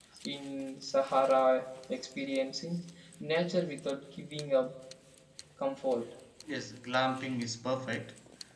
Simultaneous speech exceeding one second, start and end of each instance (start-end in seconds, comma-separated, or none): none